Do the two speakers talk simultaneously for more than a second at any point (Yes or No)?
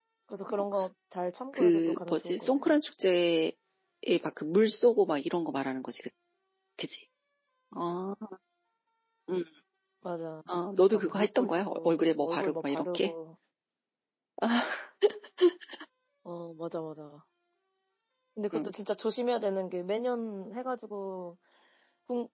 Yes